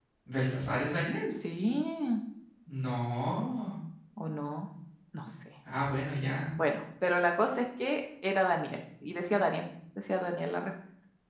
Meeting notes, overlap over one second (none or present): none